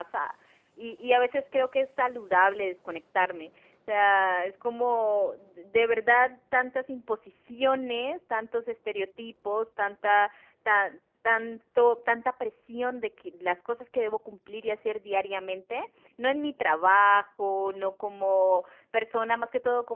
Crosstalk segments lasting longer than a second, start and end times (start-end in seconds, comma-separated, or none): none